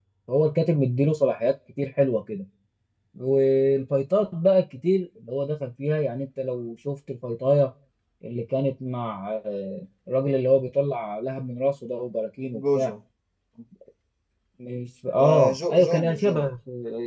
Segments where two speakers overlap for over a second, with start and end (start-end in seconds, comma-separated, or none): 15.2-16.5